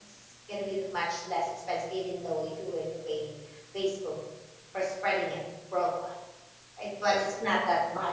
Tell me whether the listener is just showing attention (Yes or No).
Yes